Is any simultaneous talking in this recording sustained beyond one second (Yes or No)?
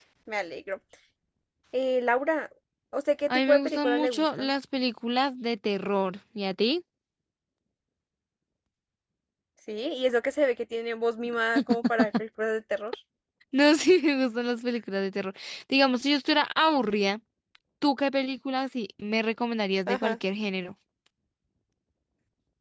Yes